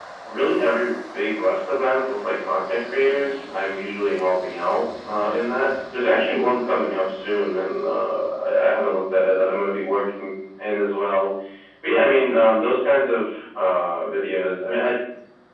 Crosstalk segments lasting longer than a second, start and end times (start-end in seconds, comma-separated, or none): none